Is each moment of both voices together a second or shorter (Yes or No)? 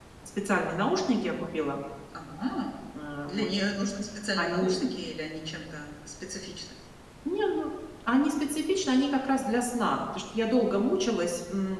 Yes